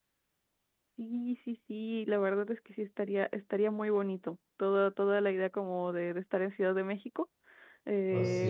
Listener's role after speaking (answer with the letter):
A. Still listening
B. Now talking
A